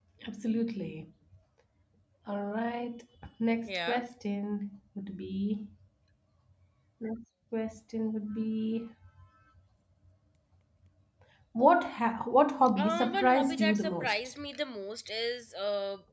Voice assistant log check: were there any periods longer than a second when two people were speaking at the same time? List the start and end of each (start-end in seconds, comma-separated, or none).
12.8-14.1